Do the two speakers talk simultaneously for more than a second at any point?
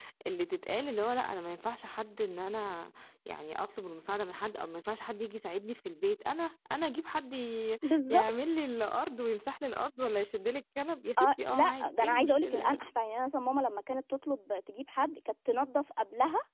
Yes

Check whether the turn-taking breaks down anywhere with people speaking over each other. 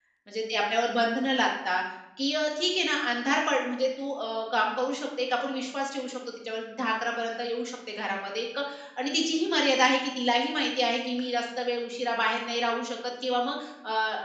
No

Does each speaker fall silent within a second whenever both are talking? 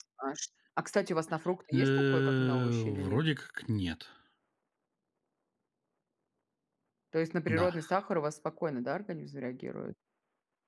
No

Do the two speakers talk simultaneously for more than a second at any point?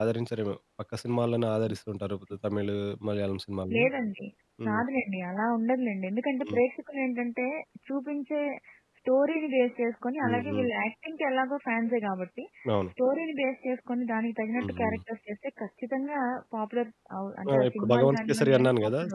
Yes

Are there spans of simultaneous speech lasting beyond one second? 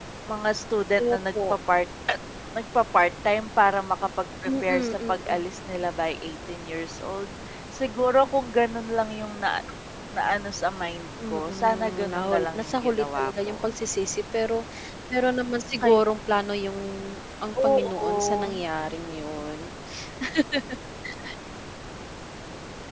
Yes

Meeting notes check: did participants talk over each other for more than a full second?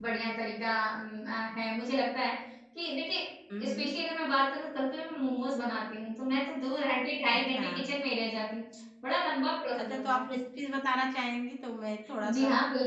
No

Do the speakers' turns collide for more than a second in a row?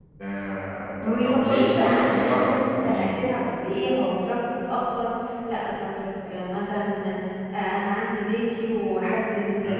Yes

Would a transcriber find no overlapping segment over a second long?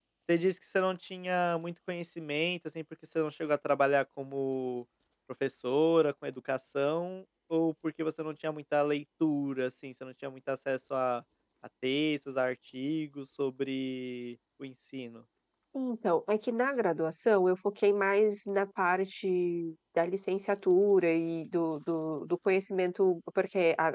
Yes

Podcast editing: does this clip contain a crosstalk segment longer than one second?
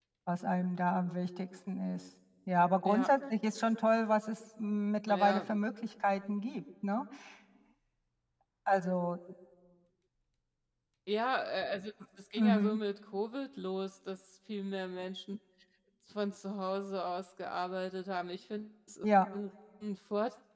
No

